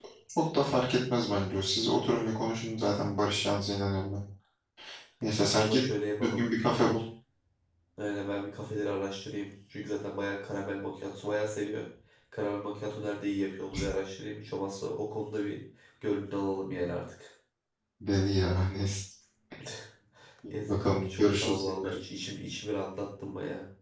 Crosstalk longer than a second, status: present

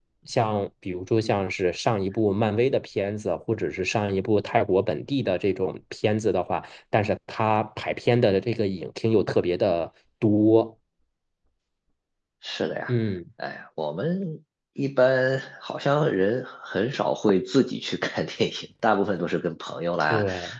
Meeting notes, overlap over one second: none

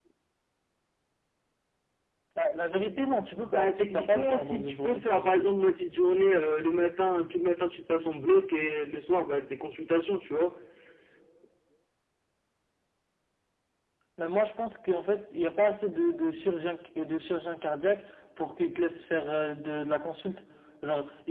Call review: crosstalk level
present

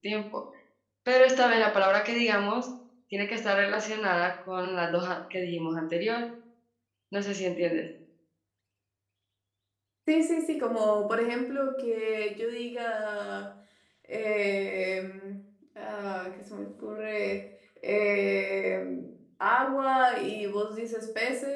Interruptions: none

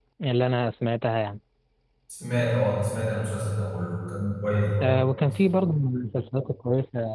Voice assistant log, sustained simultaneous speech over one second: none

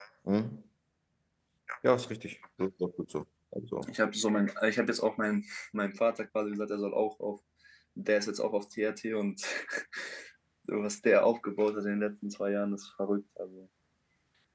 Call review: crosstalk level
none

